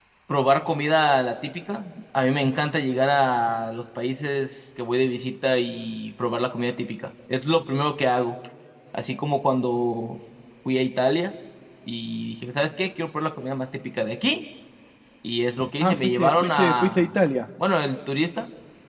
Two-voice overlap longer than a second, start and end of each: 15.8-17.2

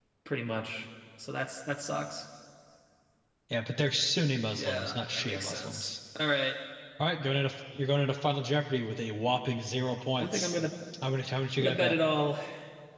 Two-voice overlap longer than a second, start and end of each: 4.5-5.9

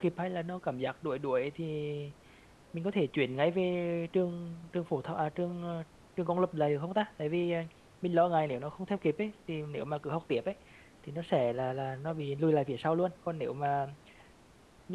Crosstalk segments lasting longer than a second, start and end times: none

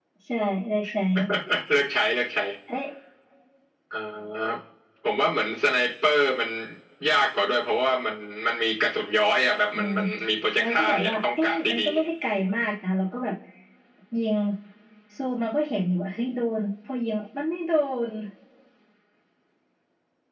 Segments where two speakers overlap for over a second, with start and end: 10.6-11.9

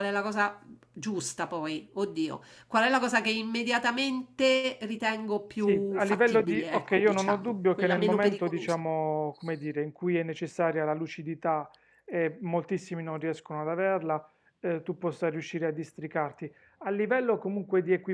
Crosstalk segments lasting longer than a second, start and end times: 5.7-8.7

